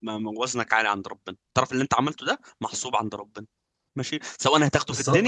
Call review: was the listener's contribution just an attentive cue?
No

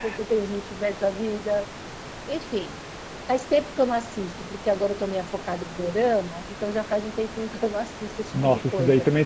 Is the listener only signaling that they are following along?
No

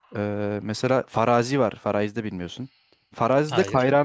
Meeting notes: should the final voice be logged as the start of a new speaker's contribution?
No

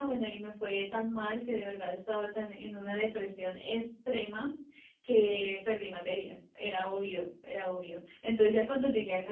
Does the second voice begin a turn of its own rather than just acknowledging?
No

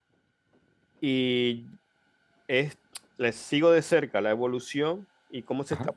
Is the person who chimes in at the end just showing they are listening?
Yes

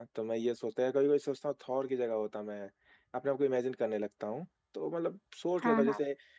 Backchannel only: Yes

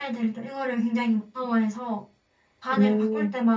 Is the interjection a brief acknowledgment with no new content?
Yes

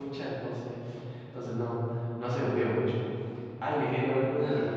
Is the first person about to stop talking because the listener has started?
No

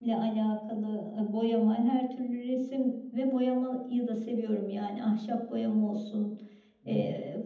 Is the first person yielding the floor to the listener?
No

